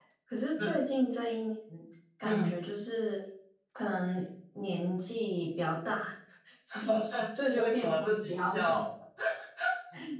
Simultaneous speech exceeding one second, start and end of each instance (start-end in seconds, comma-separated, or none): 7.5-8.8